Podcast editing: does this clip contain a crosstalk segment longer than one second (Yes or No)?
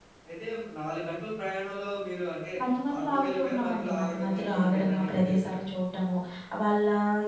Yes